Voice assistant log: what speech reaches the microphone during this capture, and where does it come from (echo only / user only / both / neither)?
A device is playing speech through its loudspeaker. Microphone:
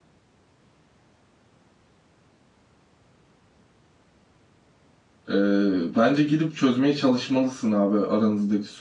user only